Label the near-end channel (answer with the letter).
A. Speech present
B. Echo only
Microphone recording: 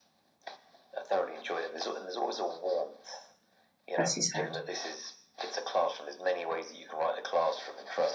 A